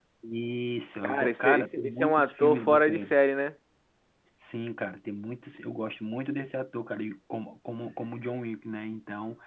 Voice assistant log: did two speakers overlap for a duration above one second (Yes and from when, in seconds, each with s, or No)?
Yes, from 1.0 s